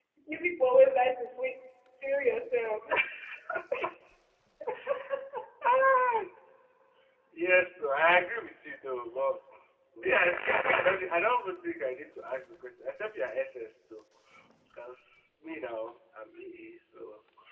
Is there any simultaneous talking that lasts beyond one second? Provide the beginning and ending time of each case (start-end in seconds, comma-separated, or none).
none